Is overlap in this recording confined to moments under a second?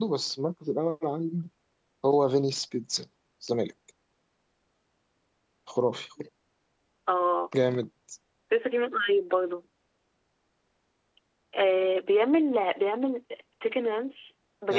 Yes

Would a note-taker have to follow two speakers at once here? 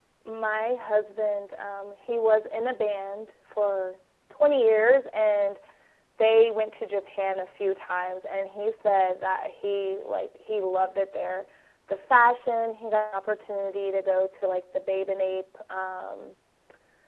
No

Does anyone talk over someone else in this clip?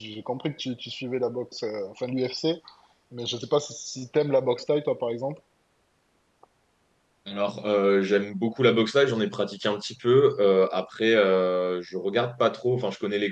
No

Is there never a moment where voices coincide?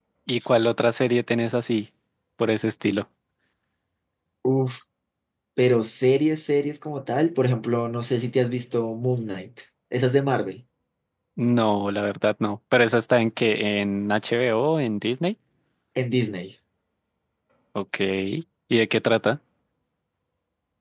Yes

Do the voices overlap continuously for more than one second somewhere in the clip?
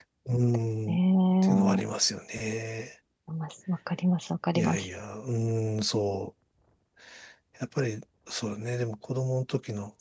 No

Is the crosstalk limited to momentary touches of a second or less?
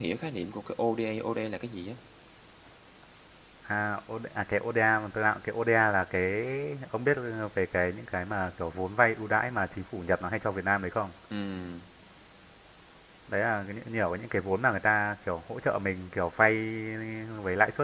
Yes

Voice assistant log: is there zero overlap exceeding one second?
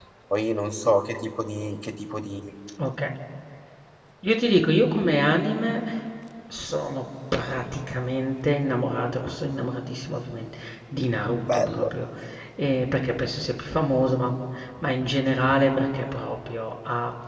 Yes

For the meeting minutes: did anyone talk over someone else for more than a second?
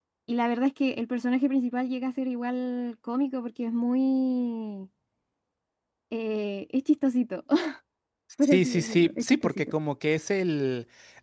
Yes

